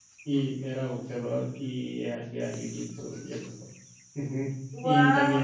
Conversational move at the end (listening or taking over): listening